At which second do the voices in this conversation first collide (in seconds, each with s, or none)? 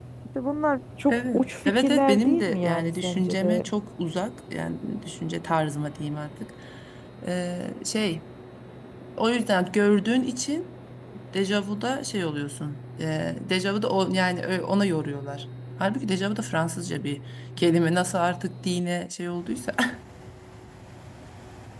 1.1 s